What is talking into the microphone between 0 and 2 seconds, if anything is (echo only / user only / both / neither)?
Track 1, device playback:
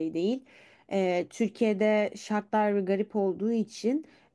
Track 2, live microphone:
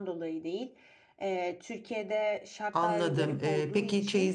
echo only